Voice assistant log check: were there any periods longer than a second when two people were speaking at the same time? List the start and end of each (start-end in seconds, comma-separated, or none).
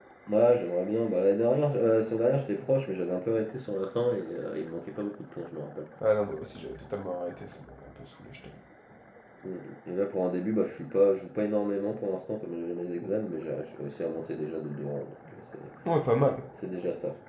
none